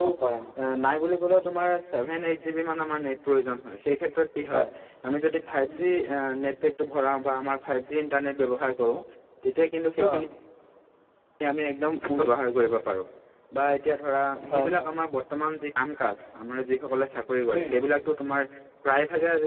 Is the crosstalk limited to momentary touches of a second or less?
Yes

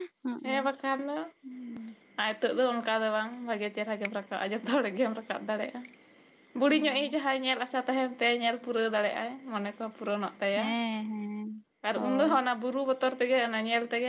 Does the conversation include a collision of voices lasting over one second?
No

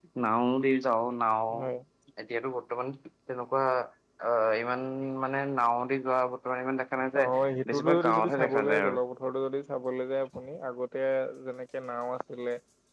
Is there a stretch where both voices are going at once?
Yes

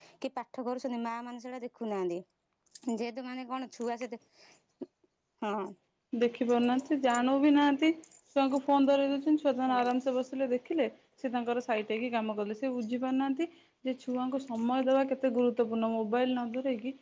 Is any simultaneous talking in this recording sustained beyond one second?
No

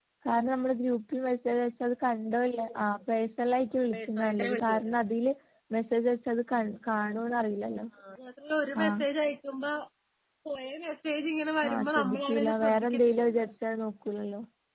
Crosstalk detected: Yes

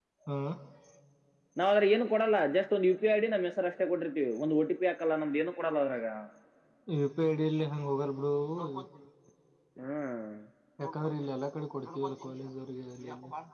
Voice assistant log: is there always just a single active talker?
Yes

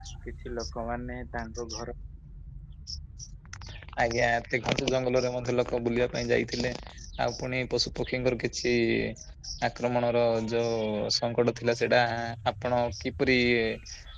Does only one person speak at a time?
Yes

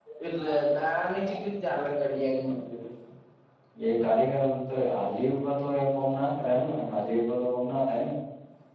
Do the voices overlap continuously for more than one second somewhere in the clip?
No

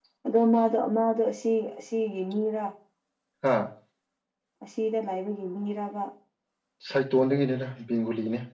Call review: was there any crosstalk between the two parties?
No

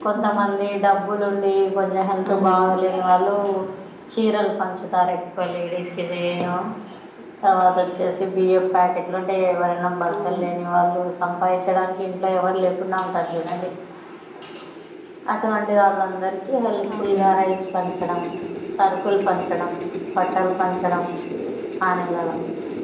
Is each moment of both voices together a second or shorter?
Yes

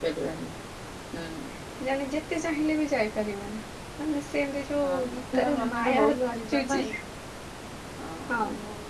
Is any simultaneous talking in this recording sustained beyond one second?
Yes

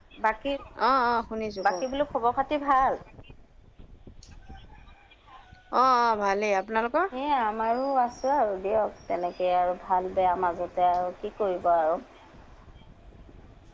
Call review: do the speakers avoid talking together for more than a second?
Yes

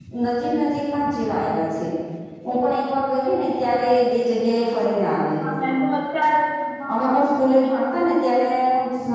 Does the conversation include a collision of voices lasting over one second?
No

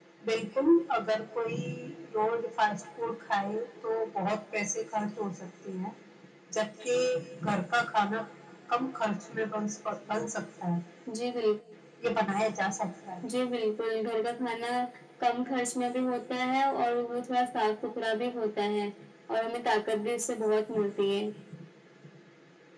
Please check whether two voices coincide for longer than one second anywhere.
No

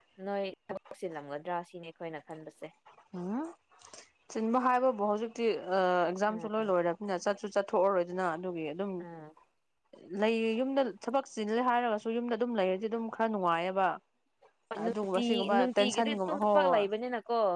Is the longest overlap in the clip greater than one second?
Yes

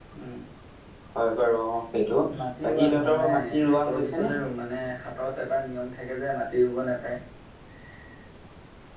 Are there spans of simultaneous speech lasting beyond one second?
Yes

